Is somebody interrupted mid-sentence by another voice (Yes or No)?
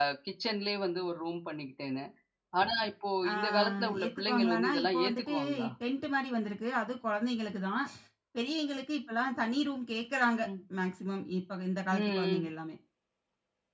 Yes